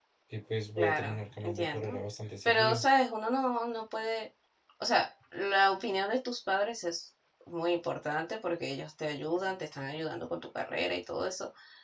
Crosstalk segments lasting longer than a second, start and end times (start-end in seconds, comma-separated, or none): 0.8-2.0